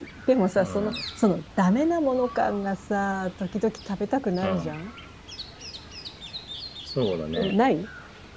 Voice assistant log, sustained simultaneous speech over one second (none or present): none